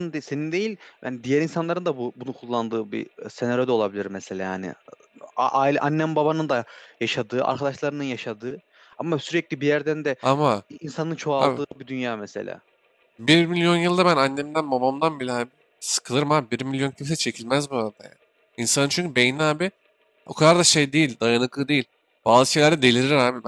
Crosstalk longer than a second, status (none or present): none